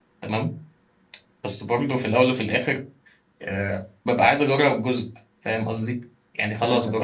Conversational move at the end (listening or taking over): listening